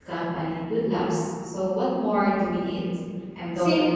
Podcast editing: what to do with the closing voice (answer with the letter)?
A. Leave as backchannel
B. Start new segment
B